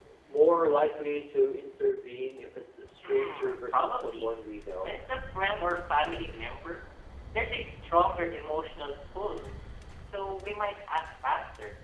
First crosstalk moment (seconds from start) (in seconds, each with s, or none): 3.0 s